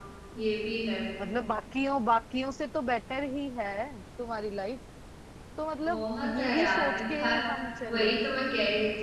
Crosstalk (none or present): present